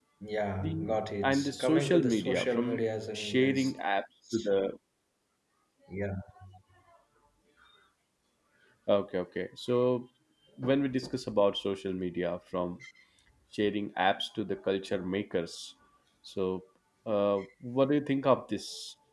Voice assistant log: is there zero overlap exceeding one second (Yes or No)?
No